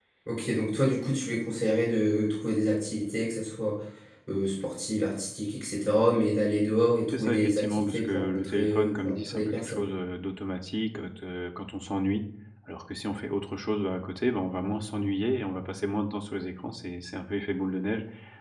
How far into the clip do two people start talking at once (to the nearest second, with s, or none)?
7 s